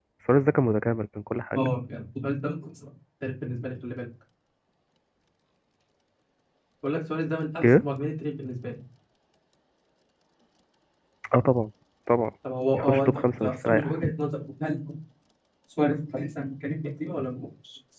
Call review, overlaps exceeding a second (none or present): present